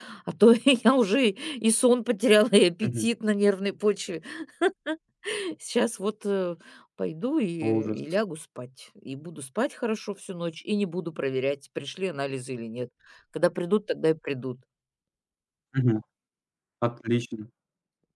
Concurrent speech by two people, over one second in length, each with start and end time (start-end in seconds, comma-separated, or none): none